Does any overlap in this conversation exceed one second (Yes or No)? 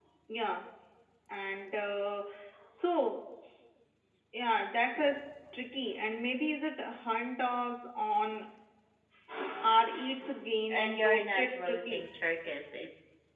Yes